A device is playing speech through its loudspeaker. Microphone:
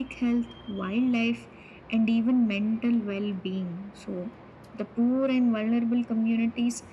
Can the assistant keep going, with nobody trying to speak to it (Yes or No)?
Yes